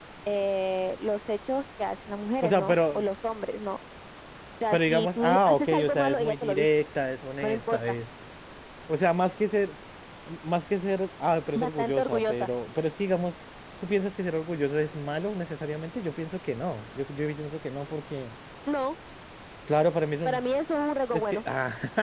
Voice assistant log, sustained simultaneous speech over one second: present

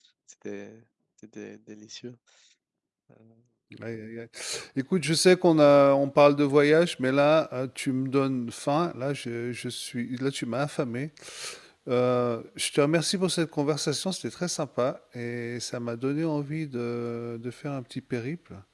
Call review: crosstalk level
none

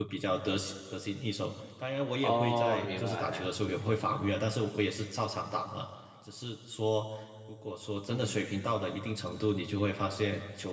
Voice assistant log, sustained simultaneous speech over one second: present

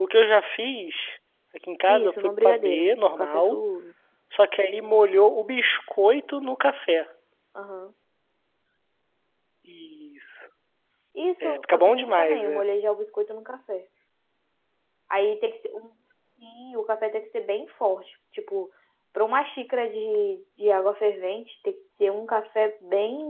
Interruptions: present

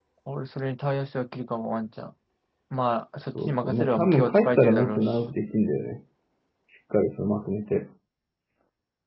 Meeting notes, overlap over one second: present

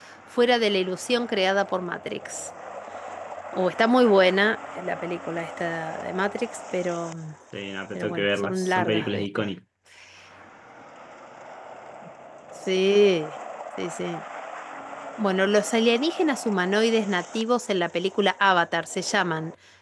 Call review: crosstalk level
present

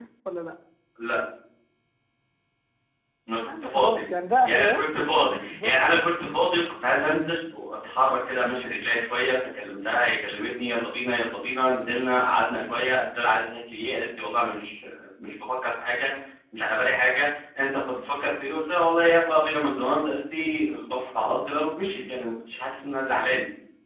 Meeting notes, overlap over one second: present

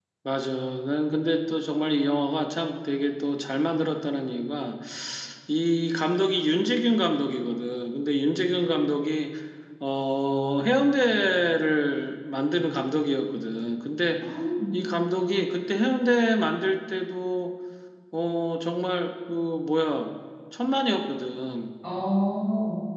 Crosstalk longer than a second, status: none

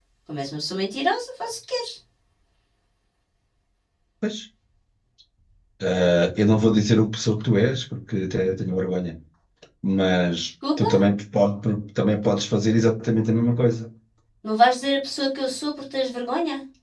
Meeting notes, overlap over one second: none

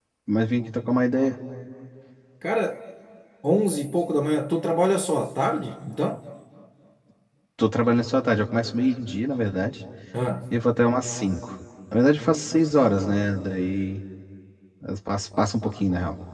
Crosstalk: none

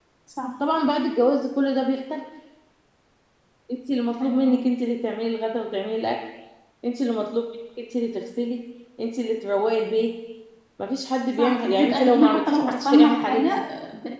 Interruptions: present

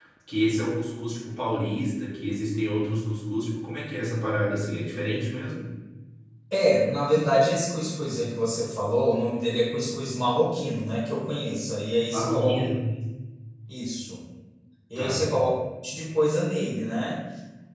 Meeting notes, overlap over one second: none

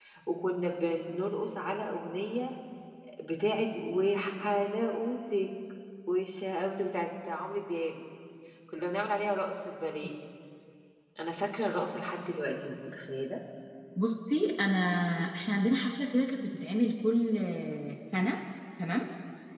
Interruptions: none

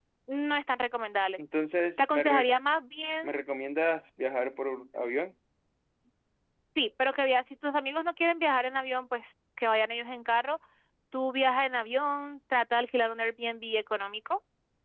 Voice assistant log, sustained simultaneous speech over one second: none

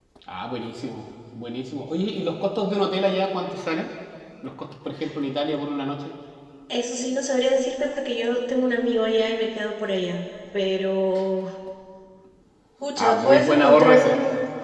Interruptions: present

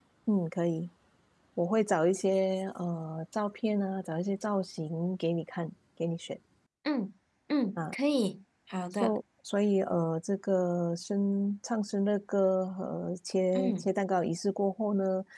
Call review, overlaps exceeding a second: none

